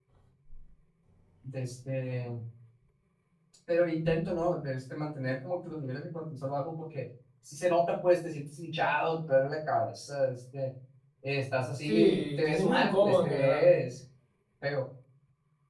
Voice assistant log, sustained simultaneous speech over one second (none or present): present